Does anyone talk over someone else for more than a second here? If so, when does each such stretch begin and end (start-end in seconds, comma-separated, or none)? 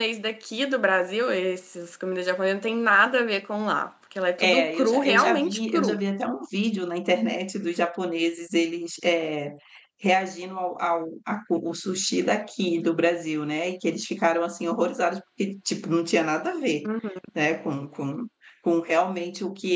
4.4-6.0